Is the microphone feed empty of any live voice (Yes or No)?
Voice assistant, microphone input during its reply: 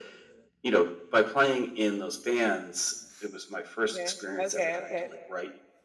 No